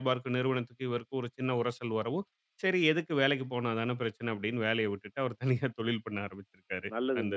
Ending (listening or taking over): taking over